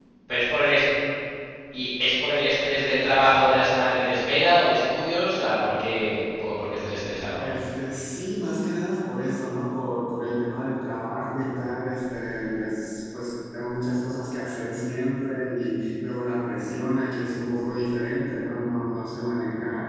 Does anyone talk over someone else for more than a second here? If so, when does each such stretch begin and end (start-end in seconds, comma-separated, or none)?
none